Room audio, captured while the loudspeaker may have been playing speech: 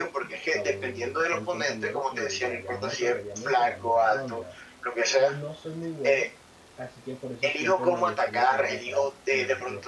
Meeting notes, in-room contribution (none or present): present